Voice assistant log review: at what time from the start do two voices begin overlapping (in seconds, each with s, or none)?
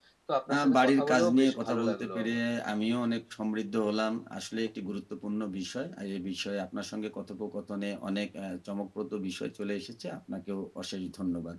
0.5 s